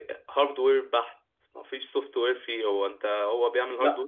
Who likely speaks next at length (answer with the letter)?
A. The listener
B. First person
B